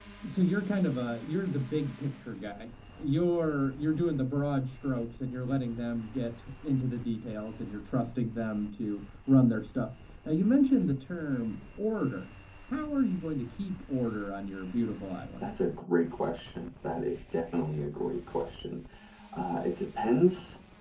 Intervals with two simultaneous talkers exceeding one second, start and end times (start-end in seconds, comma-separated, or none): none